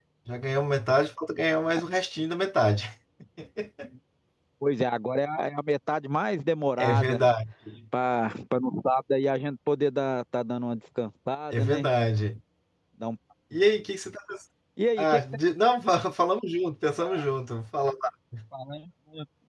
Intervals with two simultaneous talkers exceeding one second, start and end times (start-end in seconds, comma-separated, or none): none